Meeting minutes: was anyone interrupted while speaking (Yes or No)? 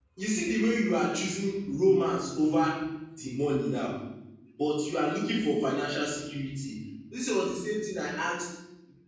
No